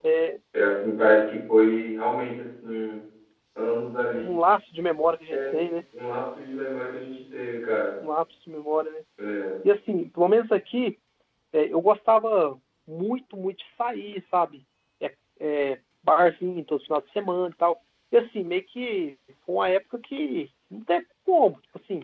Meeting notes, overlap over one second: none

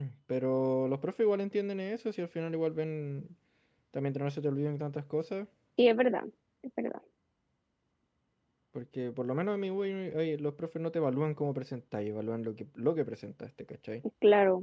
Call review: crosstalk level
none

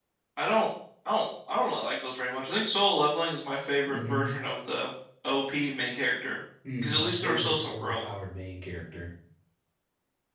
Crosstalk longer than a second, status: present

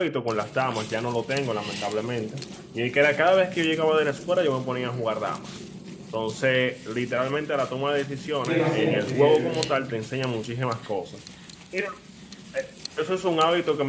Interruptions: present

